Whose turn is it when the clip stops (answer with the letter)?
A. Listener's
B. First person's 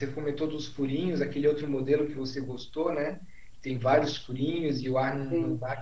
B